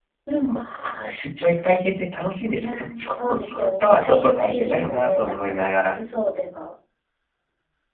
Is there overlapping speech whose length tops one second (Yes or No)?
Yes